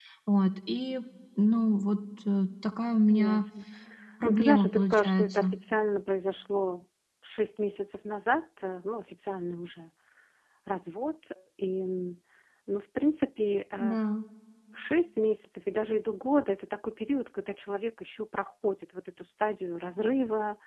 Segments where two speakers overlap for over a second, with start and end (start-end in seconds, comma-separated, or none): 4.2-5.5